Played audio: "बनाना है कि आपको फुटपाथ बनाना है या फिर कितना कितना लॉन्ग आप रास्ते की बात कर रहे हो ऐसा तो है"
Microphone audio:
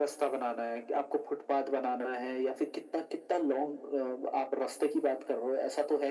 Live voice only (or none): none